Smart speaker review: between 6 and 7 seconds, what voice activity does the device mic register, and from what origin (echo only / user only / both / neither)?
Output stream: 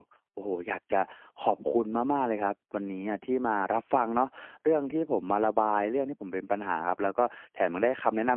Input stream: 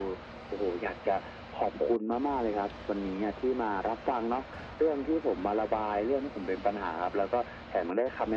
echo only